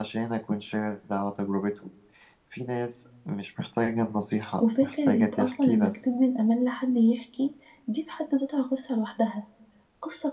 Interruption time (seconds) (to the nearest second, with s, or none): 5 s